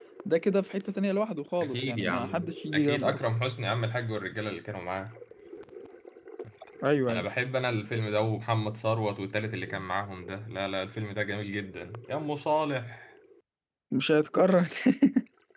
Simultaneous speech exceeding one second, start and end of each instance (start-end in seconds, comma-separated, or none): 1.6-3.2